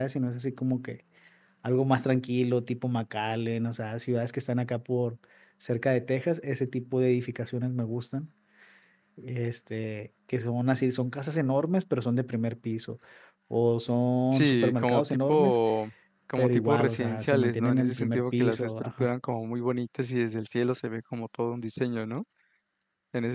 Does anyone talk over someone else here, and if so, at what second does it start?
14 s

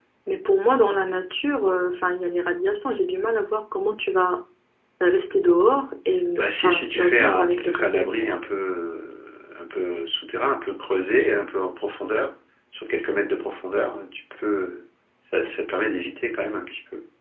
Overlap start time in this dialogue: 6 s

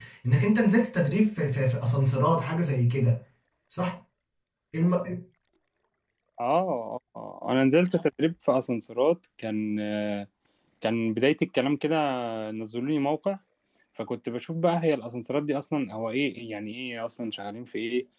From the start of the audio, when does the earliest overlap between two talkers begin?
none

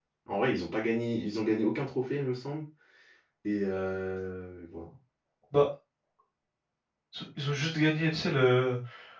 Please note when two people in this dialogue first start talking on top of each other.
none

